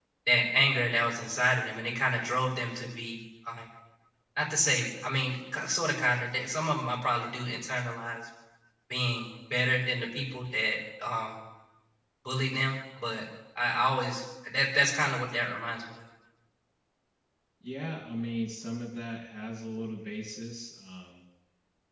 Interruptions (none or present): none